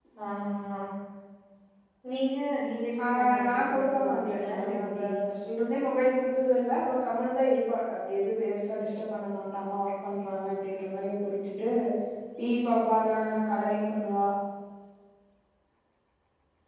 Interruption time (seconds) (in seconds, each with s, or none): 3.0 s